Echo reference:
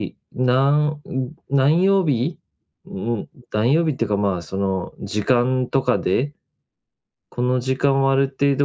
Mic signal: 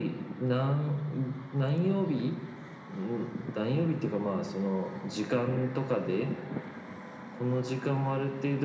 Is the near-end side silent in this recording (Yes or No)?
Yes